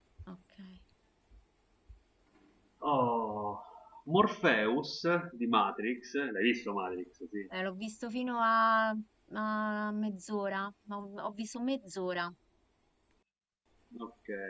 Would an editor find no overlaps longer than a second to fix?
Yes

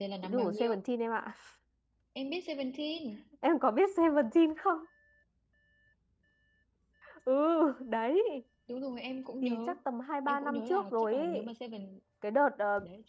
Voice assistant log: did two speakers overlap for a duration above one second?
Yes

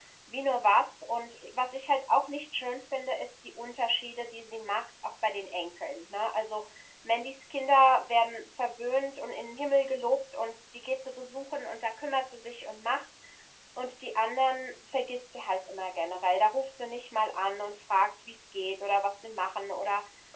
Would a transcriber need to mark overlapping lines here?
No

